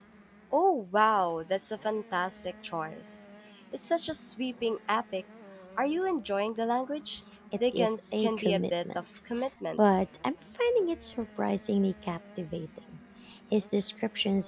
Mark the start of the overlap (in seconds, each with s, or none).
7.5 s